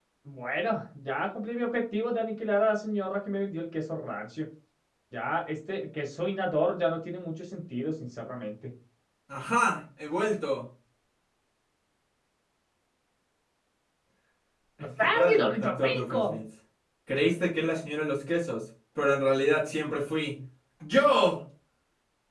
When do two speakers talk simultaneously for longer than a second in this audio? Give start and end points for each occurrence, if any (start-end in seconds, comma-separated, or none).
15.0-16.4